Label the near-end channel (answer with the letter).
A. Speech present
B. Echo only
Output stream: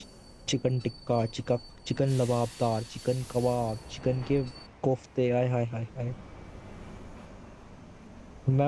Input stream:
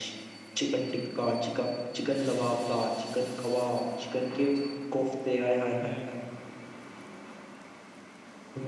A